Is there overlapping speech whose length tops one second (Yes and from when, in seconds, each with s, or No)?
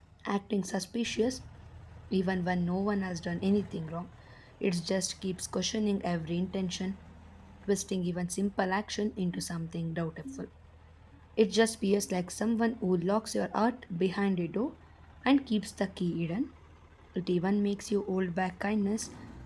No